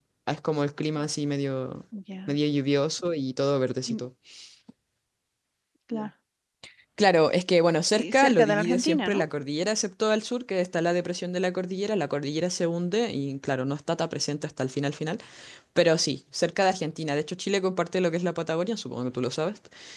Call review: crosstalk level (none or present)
present